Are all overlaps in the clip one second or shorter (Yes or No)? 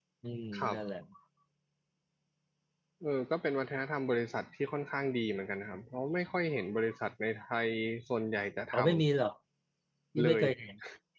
Yes